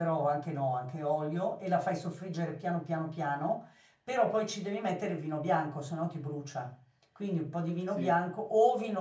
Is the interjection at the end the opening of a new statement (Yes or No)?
No